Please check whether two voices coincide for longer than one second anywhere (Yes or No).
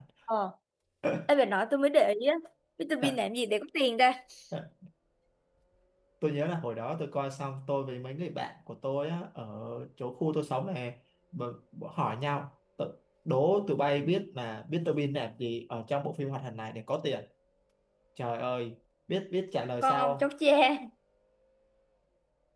No